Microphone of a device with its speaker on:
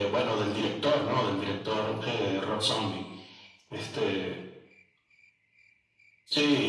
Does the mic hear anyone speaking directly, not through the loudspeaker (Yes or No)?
No